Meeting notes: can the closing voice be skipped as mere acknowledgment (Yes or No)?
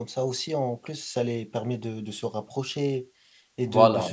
Yes